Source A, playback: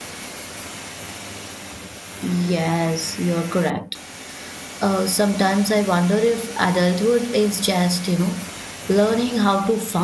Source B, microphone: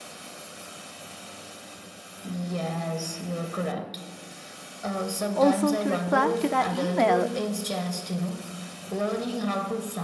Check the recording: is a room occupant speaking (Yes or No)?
Yes